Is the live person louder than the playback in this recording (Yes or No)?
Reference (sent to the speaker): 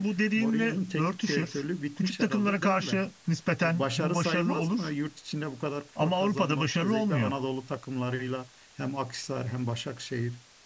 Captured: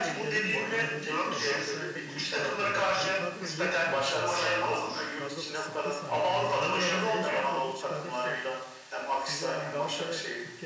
No